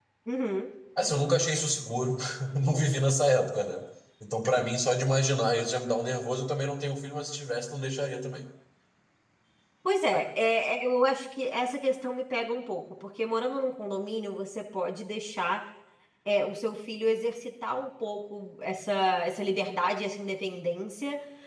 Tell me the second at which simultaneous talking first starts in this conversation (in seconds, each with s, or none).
none